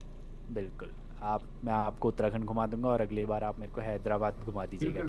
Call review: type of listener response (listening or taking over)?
taking over